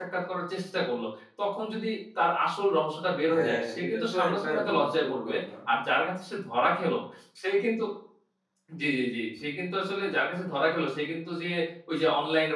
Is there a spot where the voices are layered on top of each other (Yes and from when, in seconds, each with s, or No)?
Yes, from 3.3 s